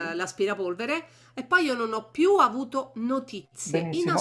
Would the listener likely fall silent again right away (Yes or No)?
No